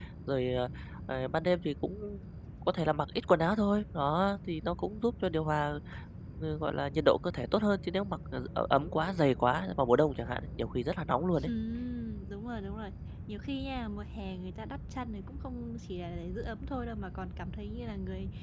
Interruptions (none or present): none